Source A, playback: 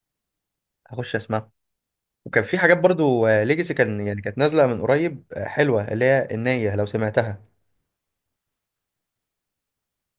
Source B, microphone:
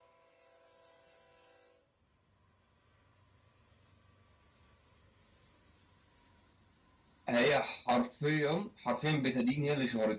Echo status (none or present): none